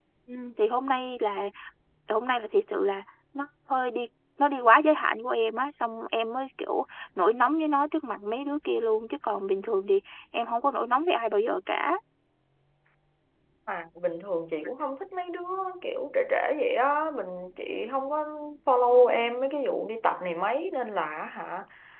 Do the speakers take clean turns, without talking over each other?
Yes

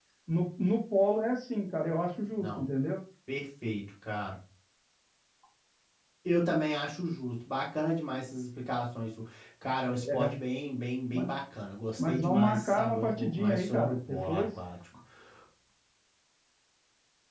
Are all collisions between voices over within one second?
No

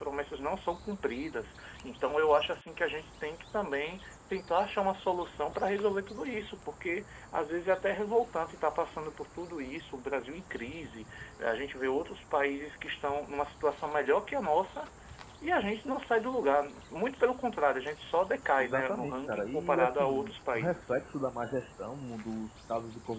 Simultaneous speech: Yes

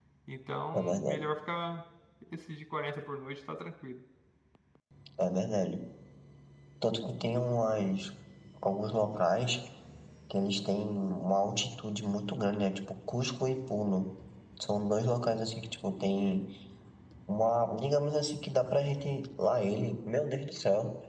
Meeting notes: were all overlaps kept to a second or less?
Yes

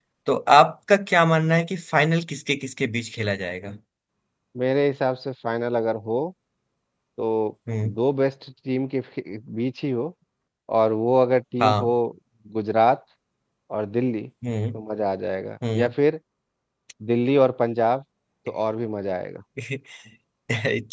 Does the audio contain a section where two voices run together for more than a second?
No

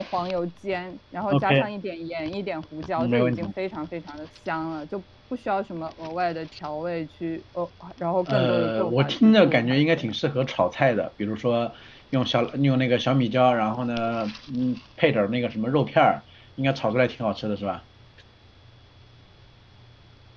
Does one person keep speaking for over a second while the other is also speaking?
Yes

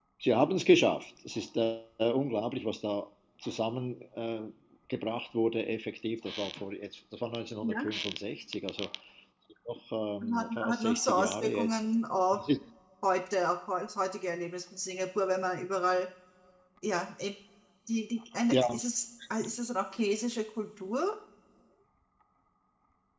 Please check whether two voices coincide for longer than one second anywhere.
Yes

